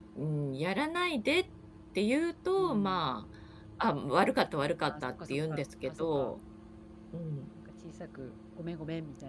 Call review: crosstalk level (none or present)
present